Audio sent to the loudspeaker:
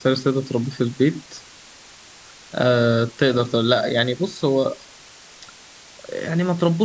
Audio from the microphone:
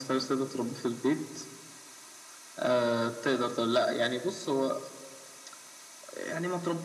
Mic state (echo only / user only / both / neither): echo only